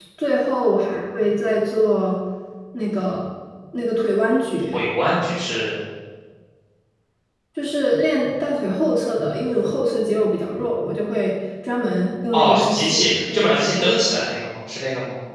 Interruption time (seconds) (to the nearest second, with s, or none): 12 s